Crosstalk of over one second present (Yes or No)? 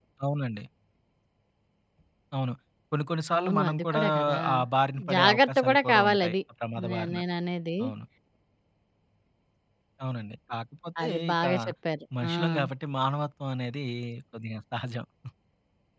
Yes